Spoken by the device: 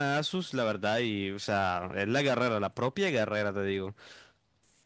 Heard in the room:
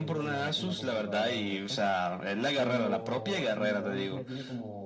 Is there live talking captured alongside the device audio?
Yes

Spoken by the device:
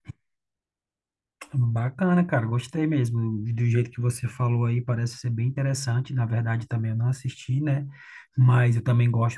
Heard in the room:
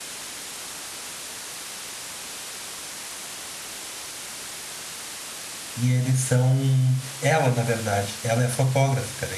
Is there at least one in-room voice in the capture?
Yes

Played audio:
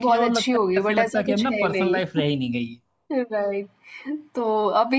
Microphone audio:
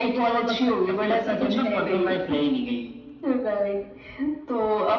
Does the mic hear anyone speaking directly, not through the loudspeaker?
No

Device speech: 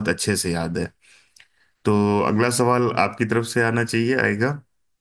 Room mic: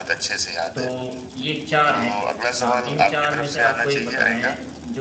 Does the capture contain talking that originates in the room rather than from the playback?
Yes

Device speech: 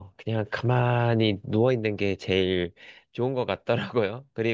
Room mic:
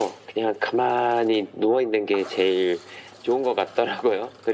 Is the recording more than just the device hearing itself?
No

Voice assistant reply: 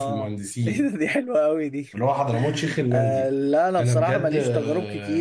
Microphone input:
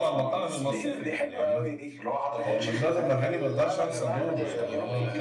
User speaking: Yes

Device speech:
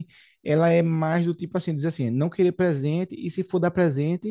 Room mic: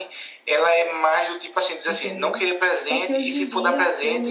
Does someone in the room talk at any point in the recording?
Yes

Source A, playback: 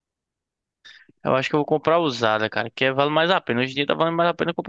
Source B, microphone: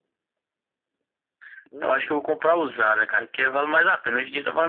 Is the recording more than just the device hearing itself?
Yes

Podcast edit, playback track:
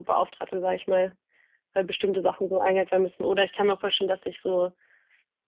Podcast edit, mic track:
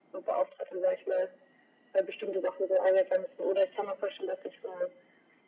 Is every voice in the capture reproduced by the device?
Yes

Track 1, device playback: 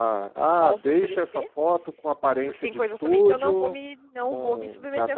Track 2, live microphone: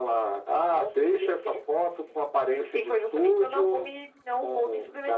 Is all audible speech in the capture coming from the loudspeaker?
Yes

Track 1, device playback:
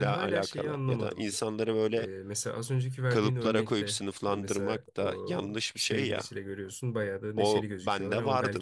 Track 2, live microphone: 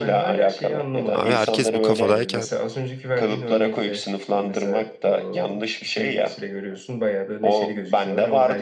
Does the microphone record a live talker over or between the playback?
Yes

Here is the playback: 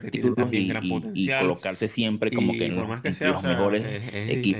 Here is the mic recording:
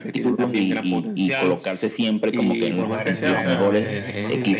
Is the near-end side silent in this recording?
No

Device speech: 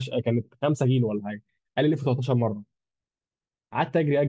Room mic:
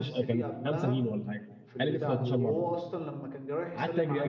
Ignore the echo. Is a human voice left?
Yes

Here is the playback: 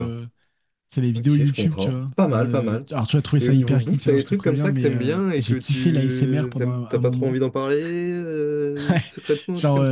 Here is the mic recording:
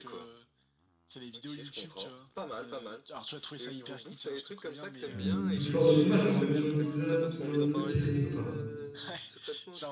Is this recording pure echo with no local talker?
No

